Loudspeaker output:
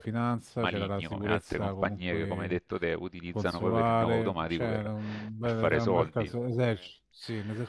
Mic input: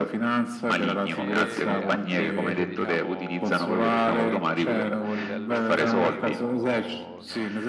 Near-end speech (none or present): present